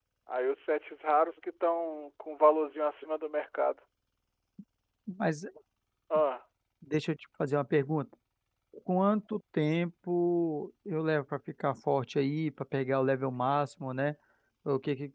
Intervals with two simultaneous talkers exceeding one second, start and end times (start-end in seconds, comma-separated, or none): none